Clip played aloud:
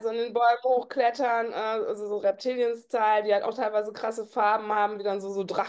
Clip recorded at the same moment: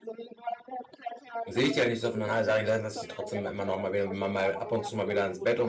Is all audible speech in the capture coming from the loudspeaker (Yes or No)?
No